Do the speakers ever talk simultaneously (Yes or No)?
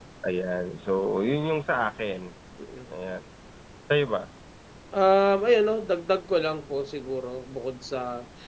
No